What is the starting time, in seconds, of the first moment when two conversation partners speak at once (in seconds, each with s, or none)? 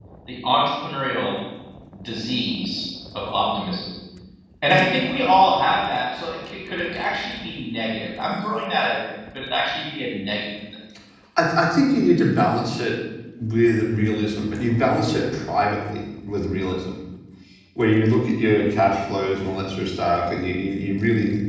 none